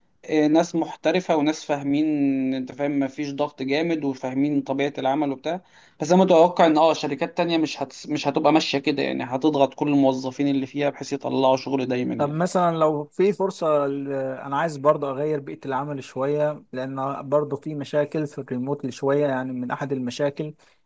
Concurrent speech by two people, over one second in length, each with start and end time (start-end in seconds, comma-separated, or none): none